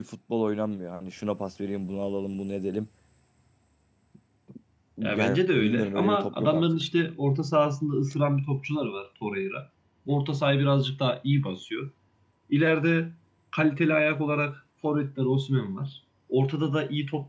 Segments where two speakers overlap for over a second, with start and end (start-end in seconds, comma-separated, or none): 5.1-6.7